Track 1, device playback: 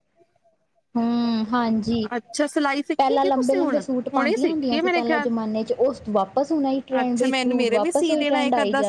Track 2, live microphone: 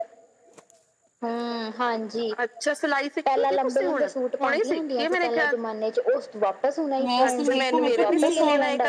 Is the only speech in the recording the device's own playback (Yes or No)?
No